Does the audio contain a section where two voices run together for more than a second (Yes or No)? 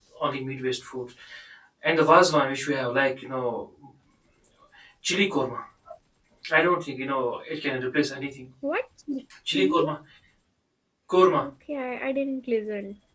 No